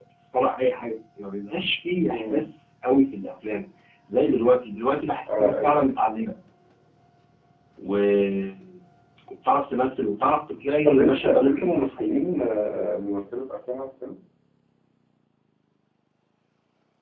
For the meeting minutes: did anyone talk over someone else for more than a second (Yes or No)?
Yes